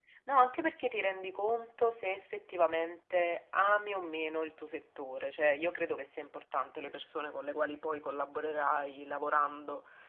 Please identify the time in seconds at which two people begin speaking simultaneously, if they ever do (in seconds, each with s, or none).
none